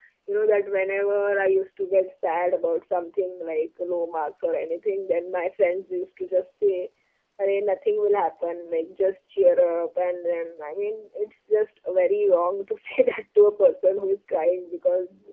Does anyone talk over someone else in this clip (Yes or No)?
No